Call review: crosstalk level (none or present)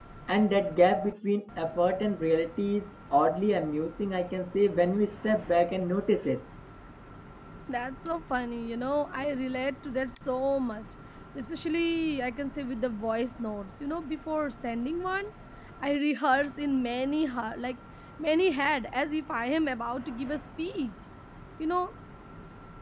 none